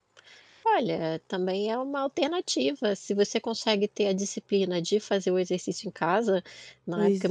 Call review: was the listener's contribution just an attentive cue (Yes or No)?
Yes